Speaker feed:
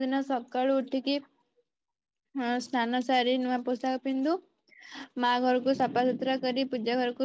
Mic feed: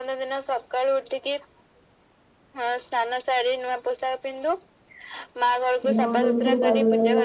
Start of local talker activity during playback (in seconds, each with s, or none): 5.9 s